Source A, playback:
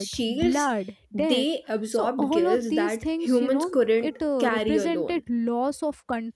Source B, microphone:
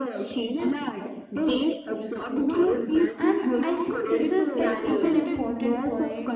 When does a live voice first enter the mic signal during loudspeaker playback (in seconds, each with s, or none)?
3.2 s